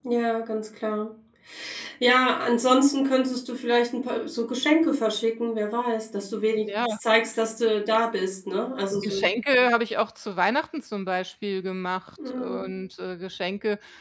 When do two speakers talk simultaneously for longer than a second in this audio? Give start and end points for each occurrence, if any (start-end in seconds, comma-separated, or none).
none